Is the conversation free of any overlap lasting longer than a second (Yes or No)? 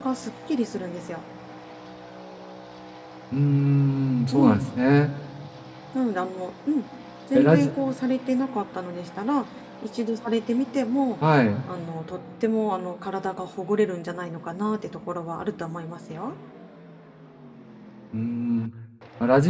Yes